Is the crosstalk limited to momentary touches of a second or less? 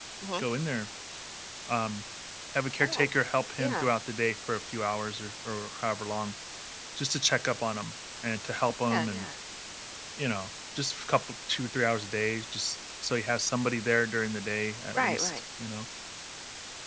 Yes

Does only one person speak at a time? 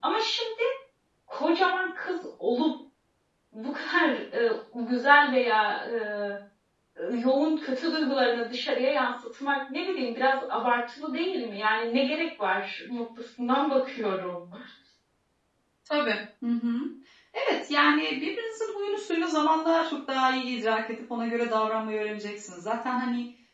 Yes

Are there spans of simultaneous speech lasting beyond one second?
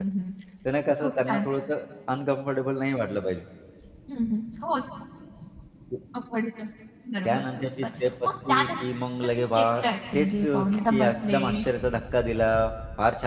Yes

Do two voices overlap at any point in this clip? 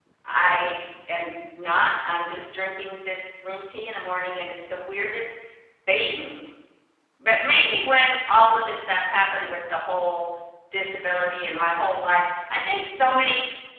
No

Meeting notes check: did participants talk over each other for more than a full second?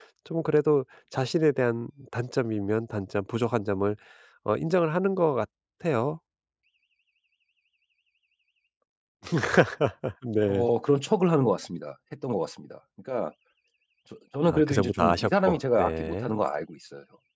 Yes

